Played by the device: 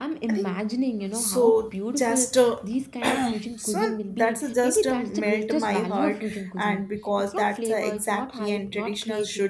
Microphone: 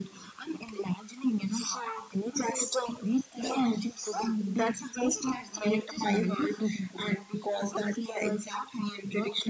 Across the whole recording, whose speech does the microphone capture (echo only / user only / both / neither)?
echo only